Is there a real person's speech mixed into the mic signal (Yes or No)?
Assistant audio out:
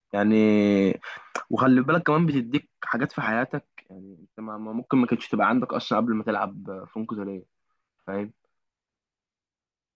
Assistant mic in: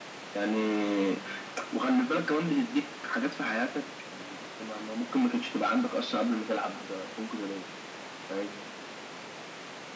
No